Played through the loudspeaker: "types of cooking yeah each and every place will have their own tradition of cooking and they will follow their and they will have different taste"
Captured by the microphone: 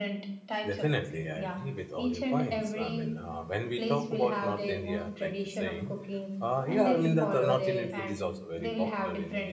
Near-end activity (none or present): present